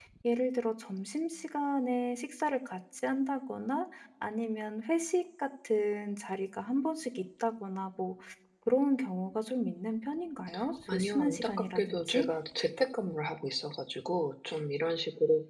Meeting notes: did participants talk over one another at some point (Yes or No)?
Yes